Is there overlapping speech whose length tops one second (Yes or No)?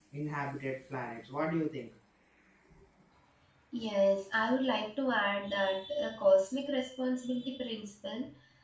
No